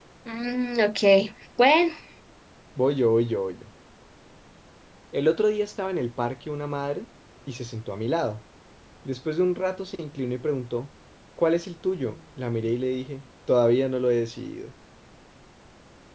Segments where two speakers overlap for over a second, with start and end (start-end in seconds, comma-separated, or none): none